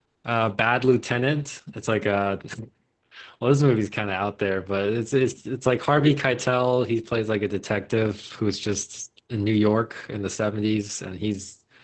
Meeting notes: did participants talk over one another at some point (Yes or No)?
No